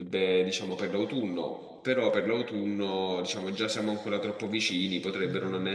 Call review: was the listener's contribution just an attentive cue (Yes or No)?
Yes